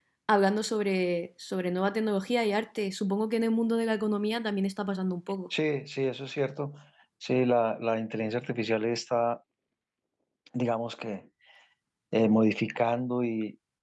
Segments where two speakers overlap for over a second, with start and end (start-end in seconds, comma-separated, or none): none